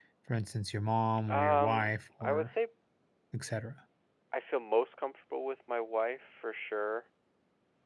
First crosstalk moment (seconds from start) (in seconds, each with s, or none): 1.3 s